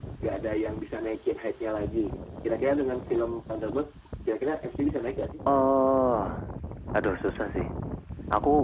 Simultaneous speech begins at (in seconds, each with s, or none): none